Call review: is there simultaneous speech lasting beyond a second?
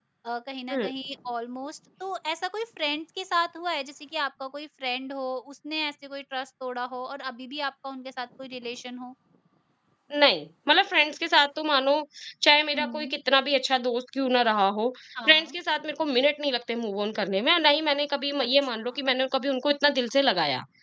No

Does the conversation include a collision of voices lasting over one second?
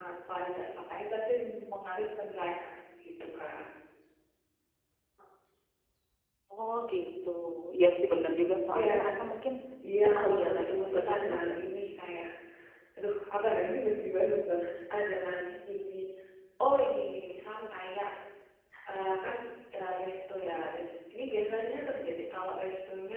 Yes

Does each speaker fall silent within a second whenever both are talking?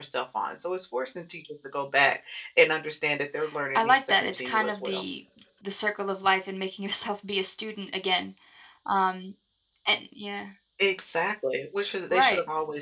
No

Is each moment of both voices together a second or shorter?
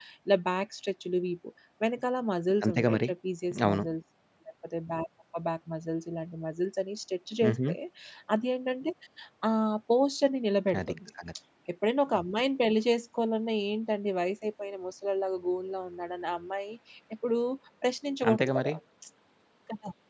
Yes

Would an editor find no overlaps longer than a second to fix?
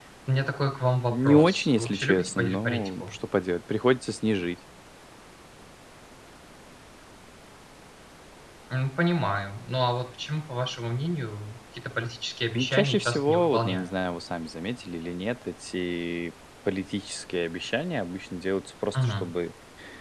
No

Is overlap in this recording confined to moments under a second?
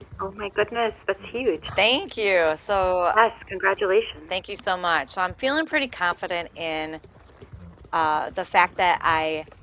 Yes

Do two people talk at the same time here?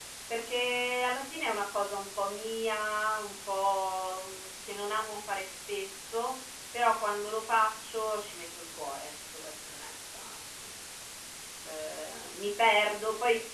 No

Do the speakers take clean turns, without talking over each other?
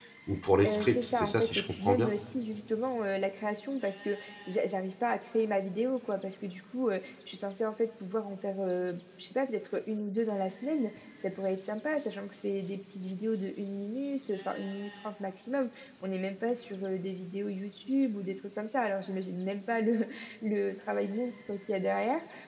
No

